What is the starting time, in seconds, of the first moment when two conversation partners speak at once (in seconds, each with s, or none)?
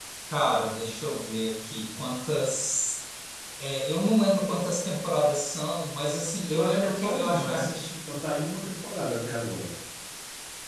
6.5 s